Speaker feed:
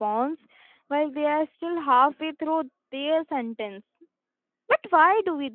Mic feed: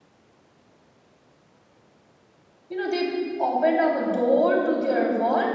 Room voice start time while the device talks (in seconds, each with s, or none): 2.7 s